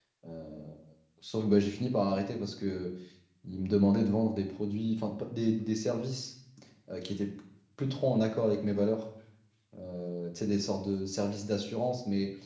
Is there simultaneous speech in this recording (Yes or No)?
No